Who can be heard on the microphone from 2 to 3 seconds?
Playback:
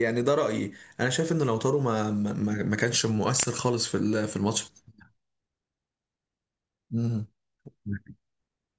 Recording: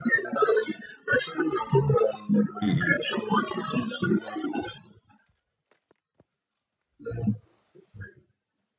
both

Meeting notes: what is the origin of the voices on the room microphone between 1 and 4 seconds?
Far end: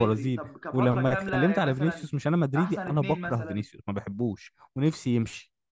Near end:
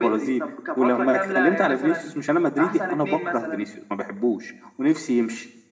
echo only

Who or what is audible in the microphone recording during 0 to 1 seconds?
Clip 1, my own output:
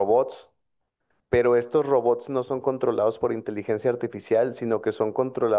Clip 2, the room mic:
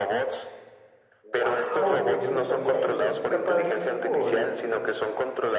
echo only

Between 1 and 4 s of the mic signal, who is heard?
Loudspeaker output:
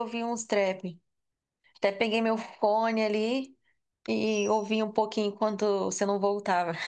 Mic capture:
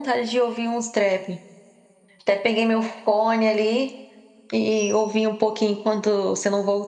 echo only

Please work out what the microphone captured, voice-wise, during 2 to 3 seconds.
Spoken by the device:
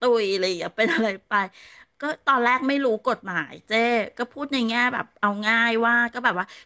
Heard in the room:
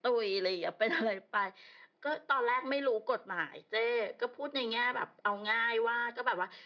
echo only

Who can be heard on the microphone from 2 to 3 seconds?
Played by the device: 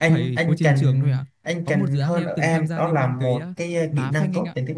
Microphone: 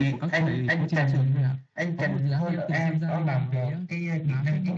echo only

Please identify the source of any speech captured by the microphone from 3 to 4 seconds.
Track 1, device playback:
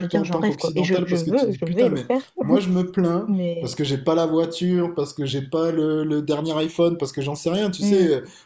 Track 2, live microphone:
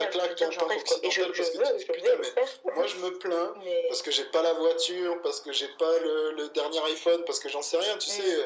echo only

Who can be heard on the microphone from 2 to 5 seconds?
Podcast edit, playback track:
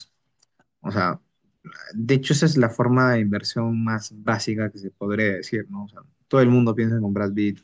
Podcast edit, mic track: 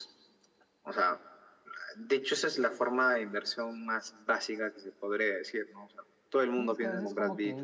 echo only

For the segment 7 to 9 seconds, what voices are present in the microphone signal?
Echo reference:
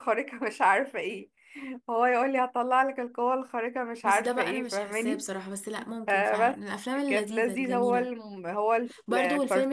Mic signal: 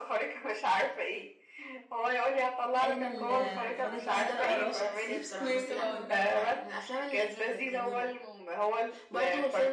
echo only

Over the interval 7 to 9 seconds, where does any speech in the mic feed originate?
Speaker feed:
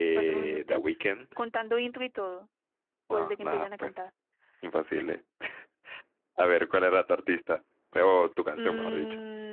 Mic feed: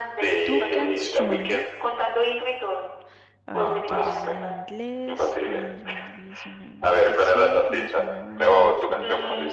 both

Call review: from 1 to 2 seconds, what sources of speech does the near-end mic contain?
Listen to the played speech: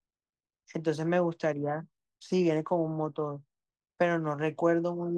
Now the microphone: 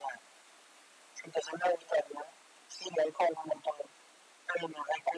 echo only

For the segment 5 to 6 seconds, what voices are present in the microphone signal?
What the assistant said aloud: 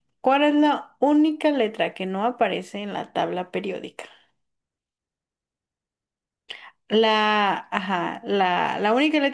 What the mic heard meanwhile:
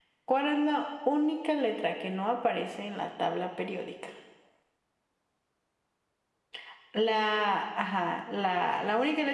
neither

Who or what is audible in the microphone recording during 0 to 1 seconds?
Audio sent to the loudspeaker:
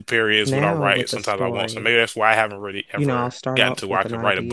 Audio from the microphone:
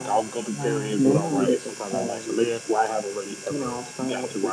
both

